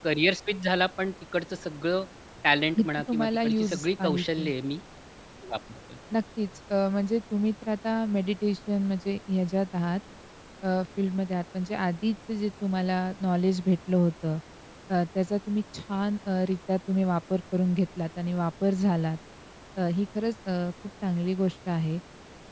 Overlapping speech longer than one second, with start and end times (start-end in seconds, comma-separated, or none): 2.8-4.5